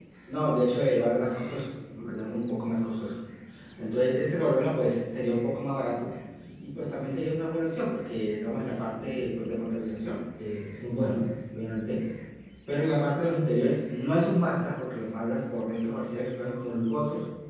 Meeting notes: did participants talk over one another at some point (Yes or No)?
No